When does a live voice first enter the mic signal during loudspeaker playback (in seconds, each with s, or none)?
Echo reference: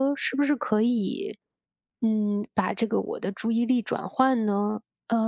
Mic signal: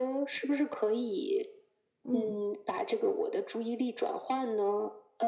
2.0 s